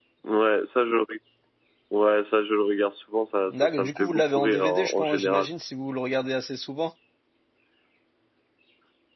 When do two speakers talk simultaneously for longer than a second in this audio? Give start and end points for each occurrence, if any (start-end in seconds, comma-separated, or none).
3.5-5.5